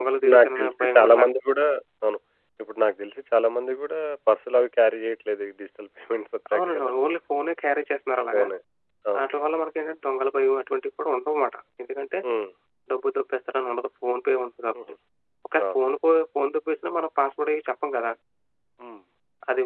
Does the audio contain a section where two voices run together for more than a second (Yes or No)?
Yes